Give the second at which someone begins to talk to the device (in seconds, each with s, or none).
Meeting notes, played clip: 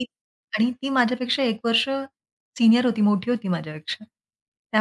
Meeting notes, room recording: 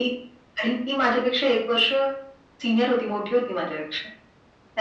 none